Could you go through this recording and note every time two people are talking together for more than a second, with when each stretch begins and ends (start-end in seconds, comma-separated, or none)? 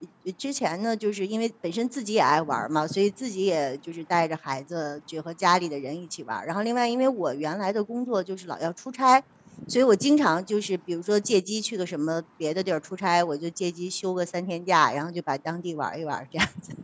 none